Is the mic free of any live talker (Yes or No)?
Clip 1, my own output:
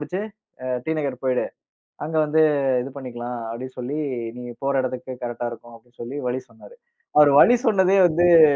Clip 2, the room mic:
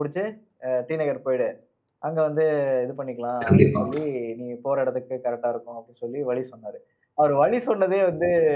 No